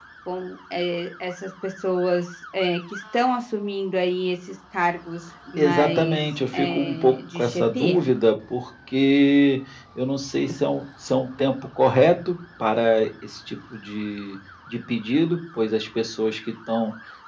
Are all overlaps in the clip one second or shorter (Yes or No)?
No